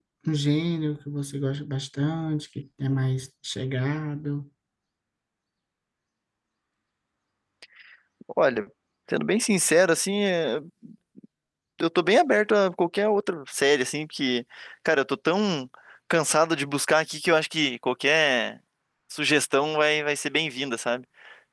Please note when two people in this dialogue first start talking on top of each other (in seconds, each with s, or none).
none